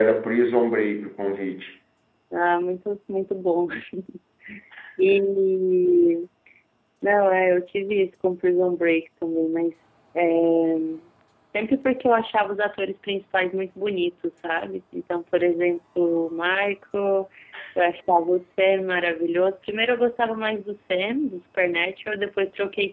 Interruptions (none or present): none